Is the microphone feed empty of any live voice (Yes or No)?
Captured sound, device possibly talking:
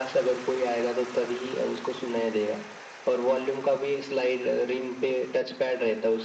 Yes